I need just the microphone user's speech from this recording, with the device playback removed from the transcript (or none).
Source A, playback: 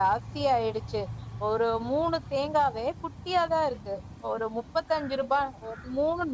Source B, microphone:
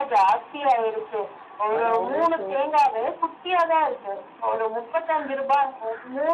அதா அவங்களே சொல்